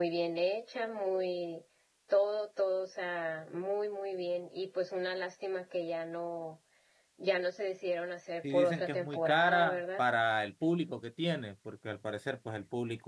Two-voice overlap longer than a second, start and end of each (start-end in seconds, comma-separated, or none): 8.5-10.0